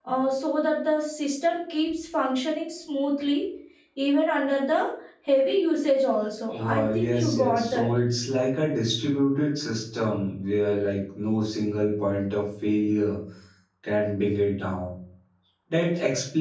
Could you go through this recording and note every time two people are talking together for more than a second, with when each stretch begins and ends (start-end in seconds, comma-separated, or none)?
6.6-7.9